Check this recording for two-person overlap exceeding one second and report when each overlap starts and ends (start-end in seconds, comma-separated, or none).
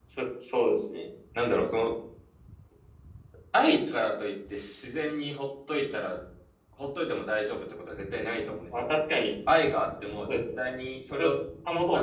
none